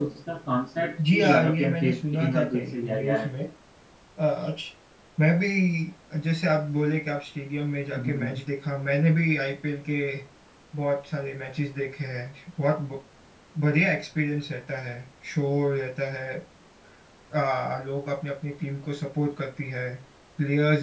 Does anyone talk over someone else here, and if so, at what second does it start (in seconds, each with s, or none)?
1.1 s